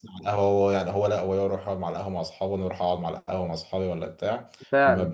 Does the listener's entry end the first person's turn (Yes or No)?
No